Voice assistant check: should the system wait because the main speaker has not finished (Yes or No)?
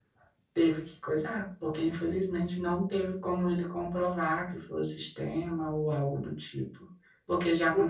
No